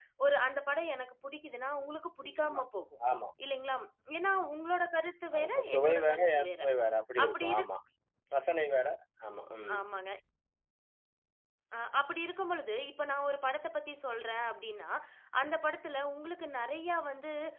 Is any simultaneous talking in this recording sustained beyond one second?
Yes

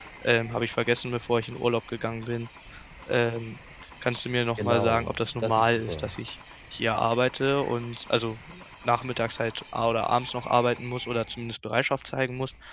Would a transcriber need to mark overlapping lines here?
Yes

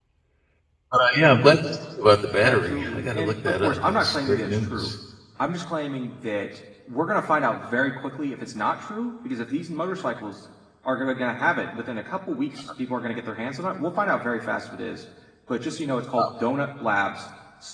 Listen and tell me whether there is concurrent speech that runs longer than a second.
Yes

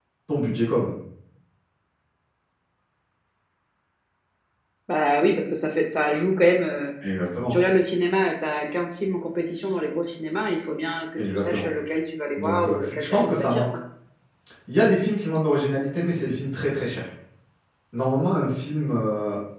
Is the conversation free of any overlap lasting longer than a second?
No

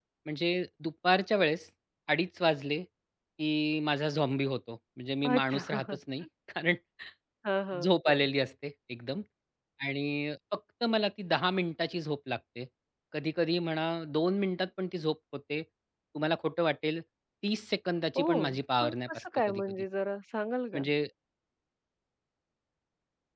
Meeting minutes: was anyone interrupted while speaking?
Yes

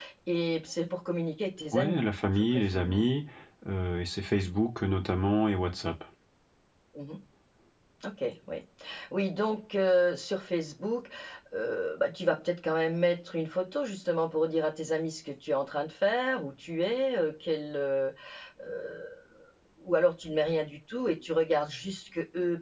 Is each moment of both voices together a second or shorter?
No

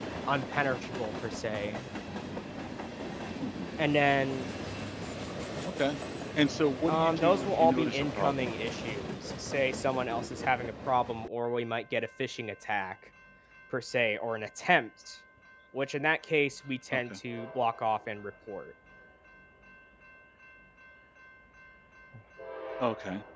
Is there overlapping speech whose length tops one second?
Yes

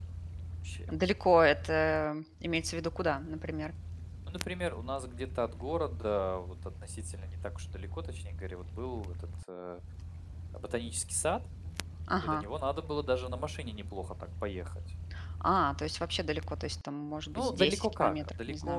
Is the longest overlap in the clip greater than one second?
Yes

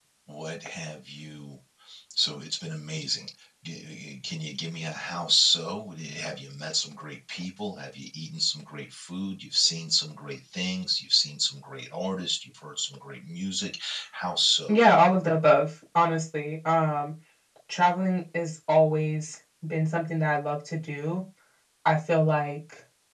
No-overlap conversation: Yes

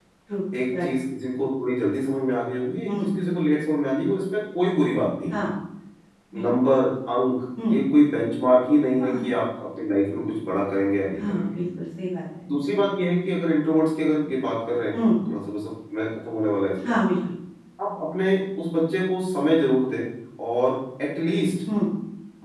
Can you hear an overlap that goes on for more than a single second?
No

